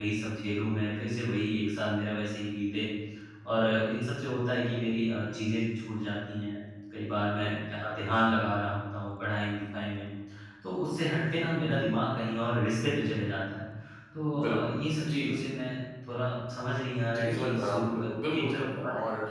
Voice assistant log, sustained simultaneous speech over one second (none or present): present